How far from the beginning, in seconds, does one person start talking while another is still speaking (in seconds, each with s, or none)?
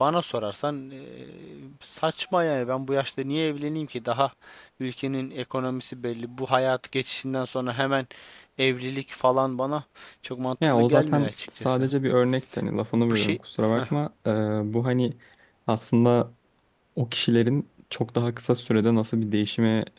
10.6 s